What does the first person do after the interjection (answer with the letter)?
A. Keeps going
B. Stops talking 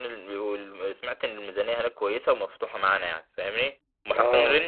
A